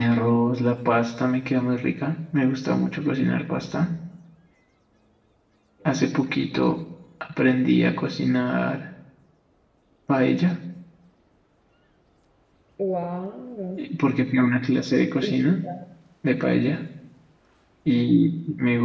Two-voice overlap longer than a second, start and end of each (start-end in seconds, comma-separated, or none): none